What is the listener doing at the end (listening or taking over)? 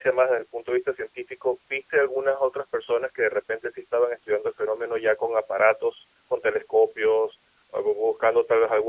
listening